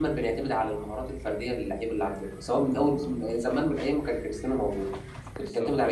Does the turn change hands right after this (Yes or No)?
No